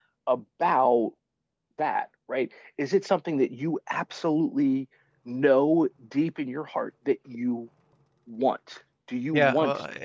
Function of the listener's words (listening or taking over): taking over